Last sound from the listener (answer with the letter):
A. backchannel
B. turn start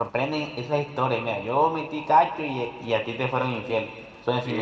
A